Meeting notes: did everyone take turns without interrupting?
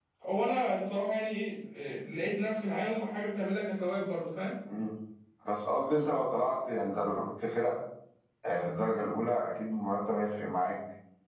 Yes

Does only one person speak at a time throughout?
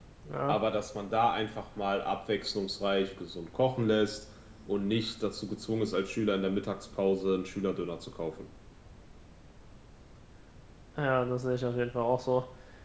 Yes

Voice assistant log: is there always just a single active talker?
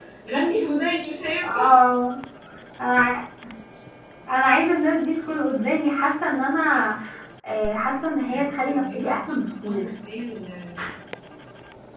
No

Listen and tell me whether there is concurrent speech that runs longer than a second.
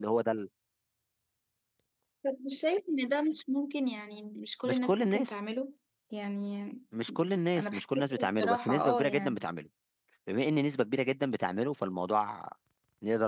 Yes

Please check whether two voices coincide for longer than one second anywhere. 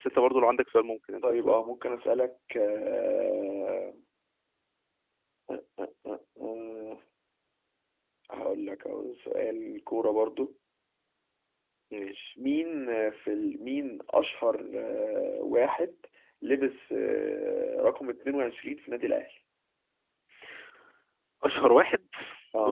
No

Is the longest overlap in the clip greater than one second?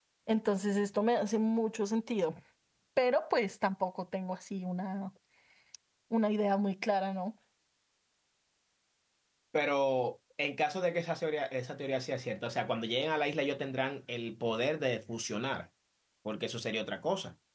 No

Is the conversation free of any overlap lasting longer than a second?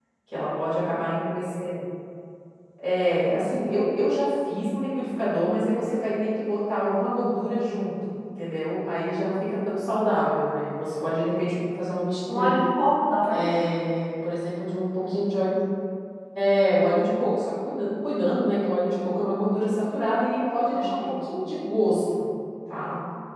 Yes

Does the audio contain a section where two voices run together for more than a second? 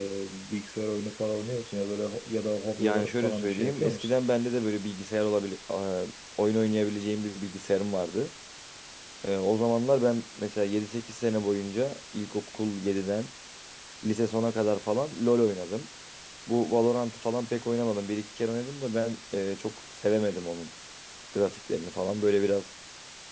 Yes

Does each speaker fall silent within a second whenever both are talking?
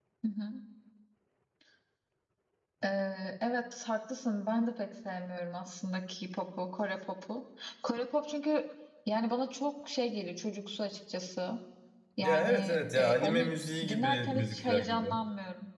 No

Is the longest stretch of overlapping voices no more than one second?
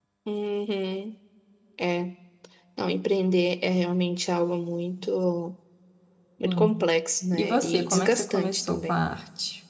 No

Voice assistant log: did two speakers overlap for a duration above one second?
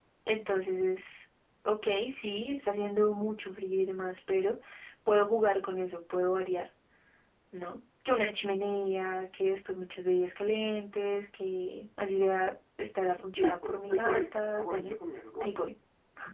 Yes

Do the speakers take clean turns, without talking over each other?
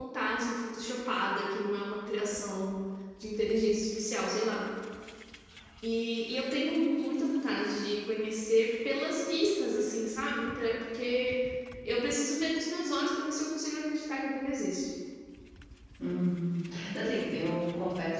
Yes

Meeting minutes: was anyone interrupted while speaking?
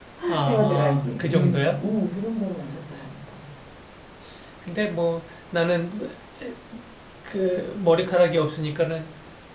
Yes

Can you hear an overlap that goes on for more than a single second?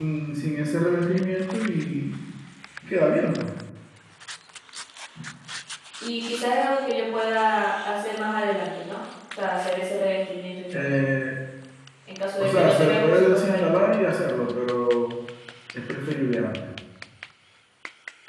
Yes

